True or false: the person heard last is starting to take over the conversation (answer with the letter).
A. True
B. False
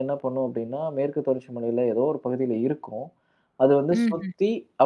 B